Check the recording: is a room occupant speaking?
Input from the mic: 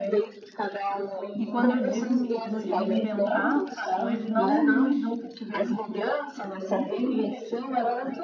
Yes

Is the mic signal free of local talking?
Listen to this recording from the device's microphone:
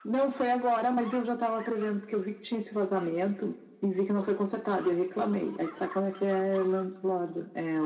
Yes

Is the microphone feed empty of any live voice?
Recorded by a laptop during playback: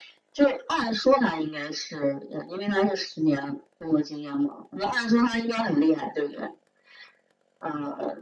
Yes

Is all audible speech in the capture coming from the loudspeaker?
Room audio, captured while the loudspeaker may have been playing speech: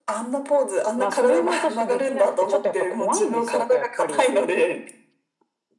Yes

